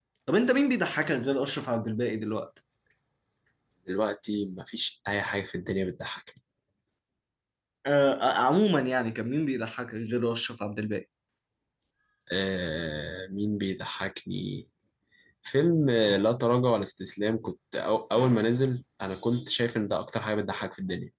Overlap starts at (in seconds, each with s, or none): none